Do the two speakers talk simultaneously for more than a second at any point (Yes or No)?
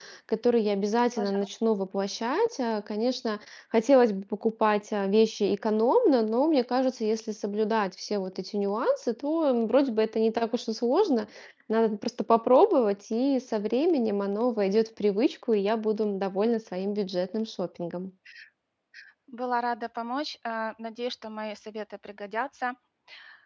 No